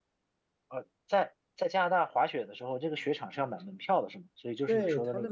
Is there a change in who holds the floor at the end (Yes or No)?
Yes